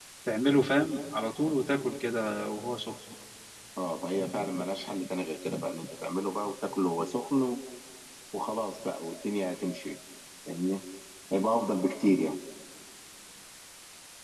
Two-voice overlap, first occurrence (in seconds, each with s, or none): none